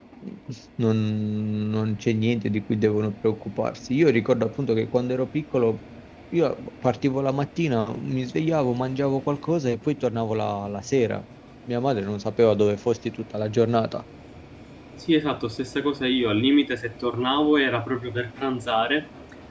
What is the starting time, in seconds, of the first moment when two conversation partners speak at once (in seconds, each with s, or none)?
none